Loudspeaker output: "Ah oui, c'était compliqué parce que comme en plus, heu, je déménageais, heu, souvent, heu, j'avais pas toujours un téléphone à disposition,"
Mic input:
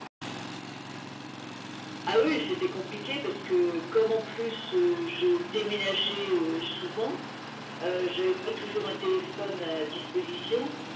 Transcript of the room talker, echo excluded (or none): none